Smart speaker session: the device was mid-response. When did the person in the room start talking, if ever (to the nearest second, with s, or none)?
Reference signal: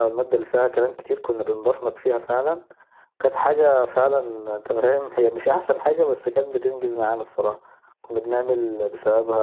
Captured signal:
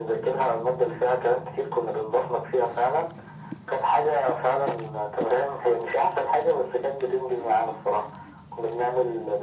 none